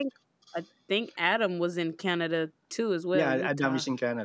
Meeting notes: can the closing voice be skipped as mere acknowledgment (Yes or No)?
No